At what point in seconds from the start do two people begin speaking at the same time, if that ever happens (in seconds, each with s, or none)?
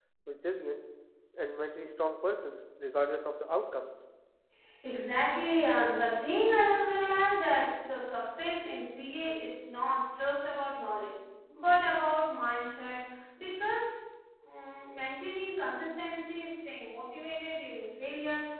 none